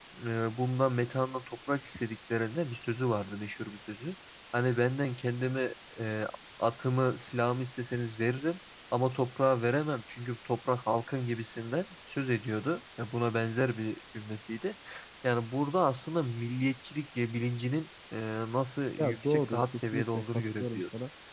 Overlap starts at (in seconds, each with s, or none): 19.0 s